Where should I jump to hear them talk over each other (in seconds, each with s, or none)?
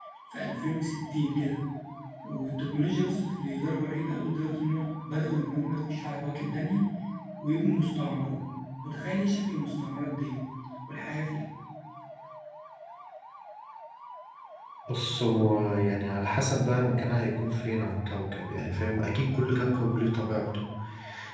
none